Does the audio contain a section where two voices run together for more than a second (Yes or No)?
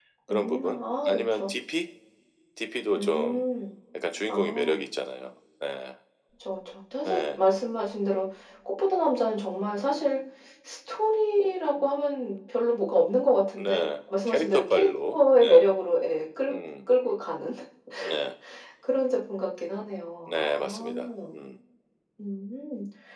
Yes